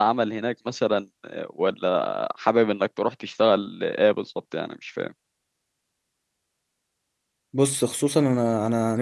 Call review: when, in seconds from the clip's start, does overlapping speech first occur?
none

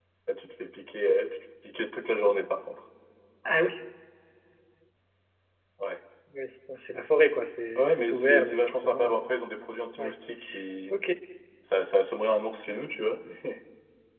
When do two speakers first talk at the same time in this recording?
7.8 s

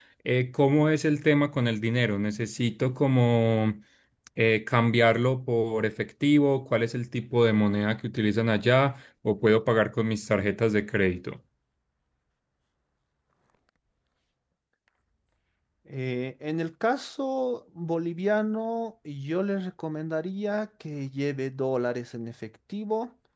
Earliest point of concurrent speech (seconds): none

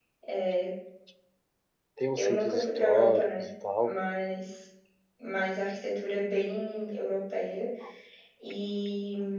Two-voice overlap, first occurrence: 2.2 s

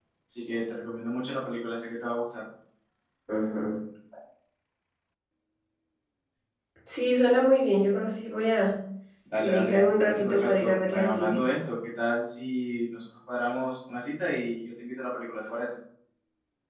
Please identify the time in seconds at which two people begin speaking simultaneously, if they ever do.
9.4 s

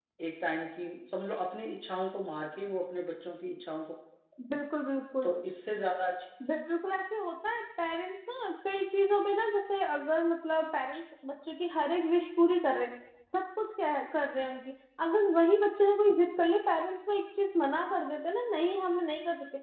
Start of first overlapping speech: none

